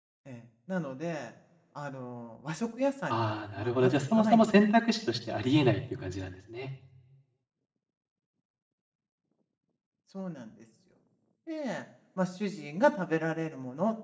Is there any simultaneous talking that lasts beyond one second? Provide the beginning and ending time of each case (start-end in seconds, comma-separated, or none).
3.1-4.5